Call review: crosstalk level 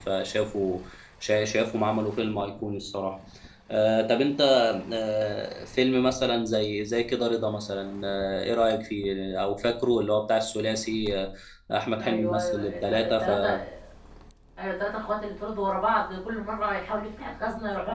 present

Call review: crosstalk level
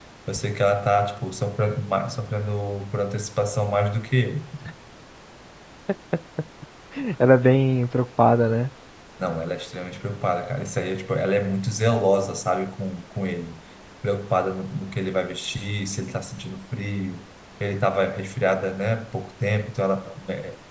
none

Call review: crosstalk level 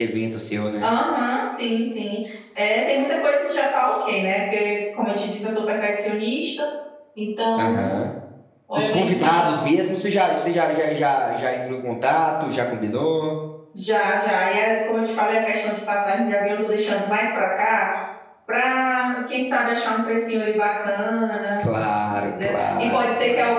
present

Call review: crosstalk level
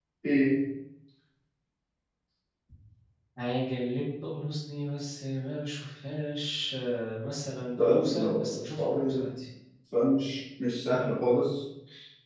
present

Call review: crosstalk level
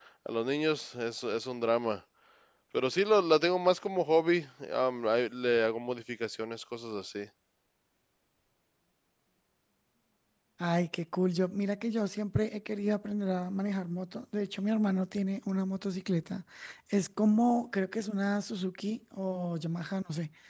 none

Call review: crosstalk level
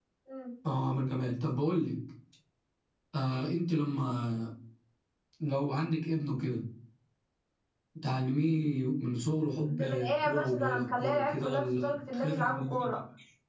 present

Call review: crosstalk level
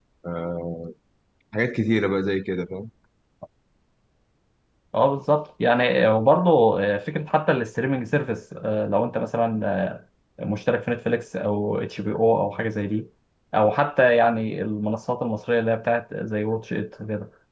none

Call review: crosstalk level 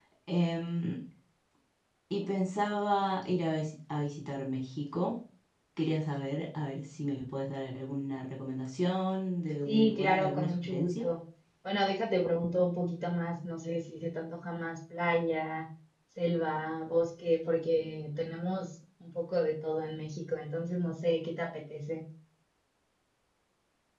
present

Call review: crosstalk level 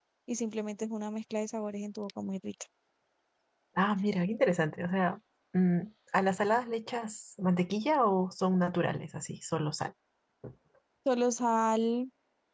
none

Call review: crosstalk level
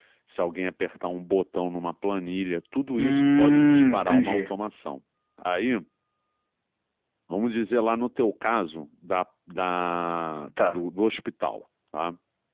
present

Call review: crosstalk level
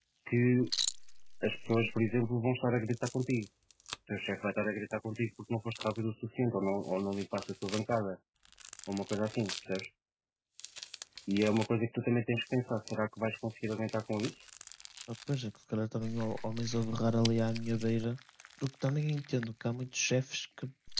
none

